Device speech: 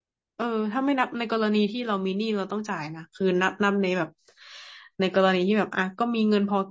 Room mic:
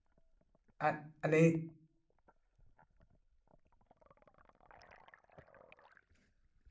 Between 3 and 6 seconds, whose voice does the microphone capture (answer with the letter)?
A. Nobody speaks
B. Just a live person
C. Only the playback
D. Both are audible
A